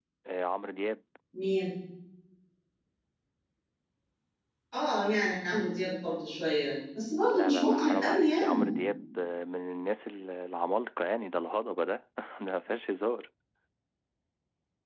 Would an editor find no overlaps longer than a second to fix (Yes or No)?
No